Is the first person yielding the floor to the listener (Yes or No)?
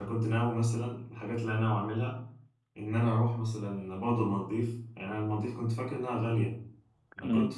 No